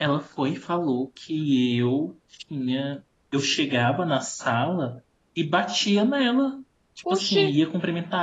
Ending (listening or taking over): listening